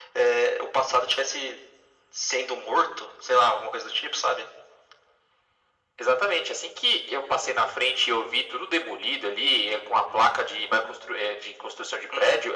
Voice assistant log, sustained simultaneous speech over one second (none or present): none